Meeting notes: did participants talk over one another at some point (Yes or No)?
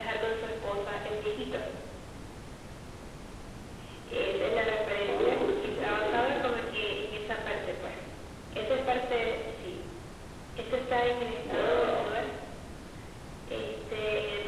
Yes